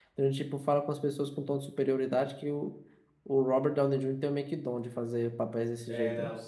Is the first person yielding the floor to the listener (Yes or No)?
Yes